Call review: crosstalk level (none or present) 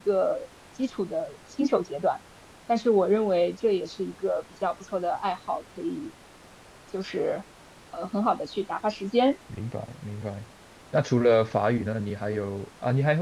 none